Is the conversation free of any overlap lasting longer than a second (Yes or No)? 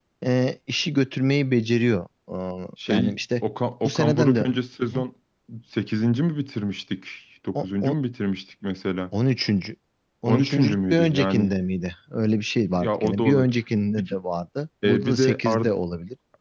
No